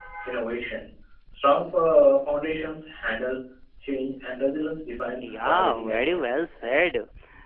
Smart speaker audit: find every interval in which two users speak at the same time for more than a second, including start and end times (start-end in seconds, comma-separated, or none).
5.2-6.4